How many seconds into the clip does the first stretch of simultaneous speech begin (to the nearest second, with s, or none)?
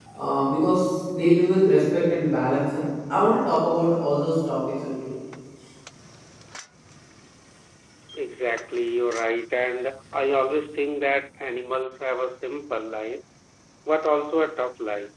none